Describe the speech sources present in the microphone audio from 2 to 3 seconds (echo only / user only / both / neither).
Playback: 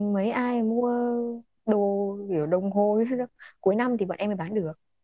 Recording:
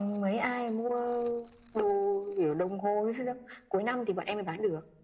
echo only